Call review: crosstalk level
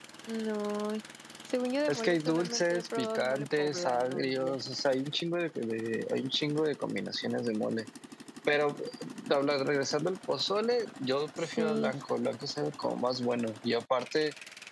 present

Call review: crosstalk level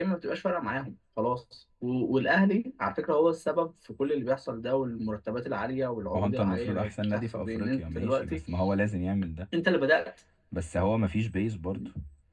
present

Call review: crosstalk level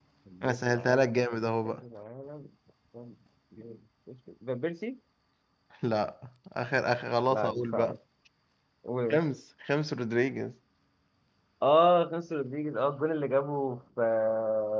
present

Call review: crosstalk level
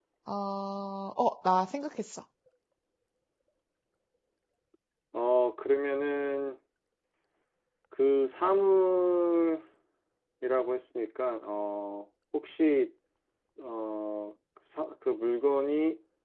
none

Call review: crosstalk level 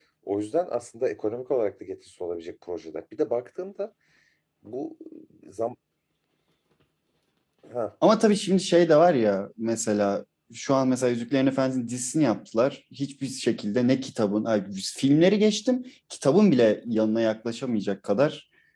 none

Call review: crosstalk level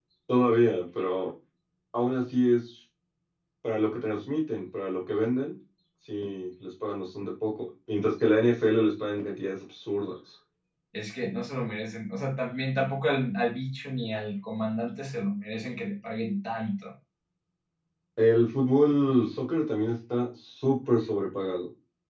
none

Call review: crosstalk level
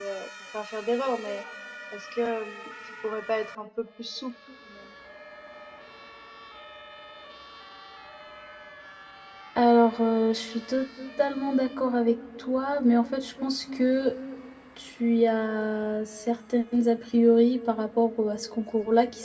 none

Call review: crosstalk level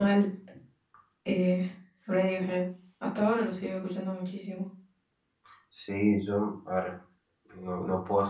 none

